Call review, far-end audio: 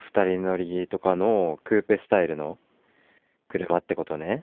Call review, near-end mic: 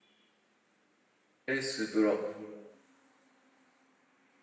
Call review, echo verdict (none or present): none